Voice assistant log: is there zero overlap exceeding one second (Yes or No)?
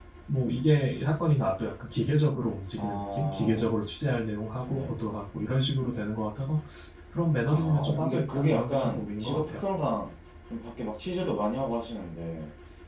No